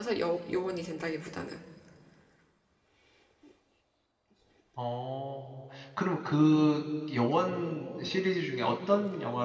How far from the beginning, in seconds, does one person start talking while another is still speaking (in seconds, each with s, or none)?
none